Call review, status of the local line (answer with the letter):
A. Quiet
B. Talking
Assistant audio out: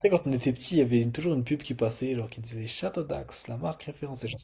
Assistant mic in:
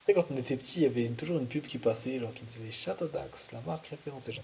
A